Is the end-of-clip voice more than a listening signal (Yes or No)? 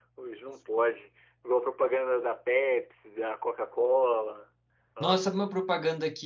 Yes